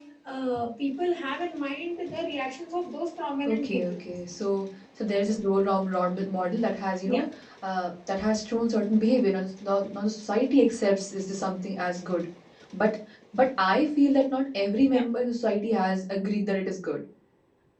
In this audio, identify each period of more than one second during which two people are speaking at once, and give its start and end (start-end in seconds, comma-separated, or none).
none